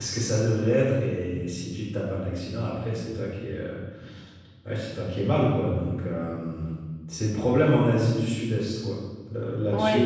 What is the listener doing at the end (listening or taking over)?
taking over